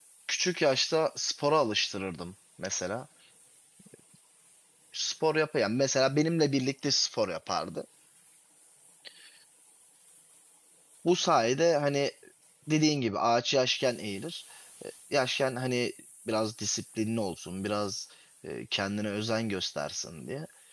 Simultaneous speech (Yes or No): No